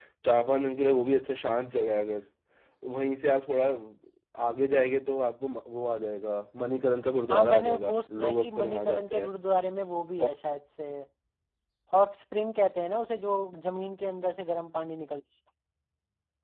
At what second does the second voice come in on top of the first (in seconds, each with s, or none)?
7.3 s